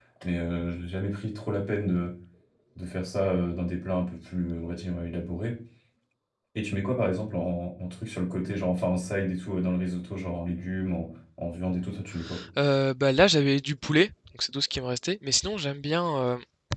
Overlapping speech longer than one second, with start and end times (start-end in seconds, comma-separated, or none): none